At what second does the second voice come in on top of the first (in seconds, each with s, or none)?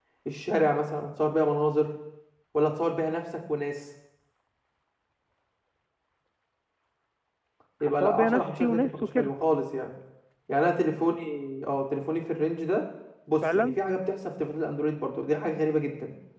7.8 s